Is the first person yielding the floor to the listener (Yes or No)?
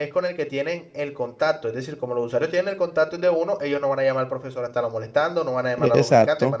Yes